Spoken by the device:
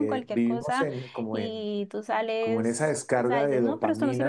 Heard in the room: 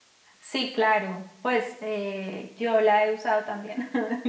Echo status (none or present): none